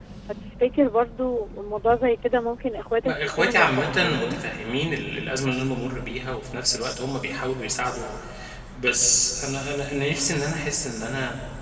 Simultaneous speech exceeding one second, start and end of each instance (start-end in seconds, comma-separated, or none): 3.0-4.3